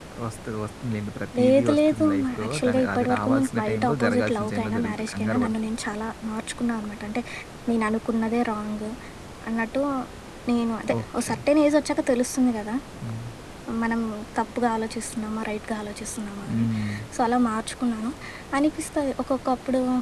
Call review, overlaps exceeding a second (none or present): present